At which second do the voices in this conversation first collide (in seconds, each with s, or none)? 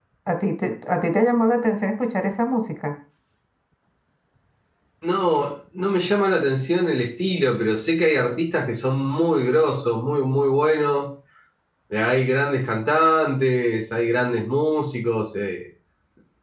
none